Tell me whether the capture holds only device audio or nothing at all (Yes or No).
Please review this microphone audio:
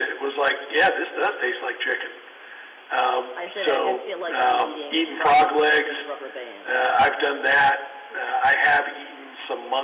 No